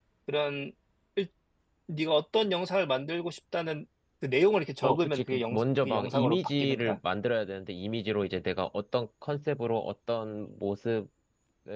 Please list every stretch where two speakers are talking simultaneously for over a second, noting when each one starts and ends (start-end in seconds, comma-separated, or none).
4.8-7.0